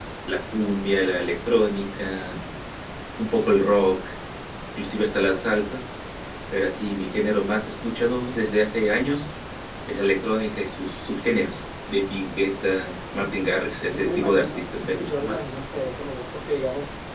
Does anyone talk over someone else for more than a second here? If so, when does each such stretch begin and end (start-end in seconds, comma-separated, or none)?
13.8-15.5